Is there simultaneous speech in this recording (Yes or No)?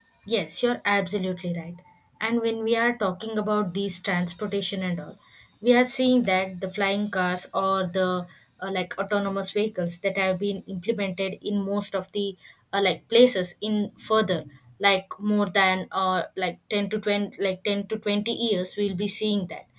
No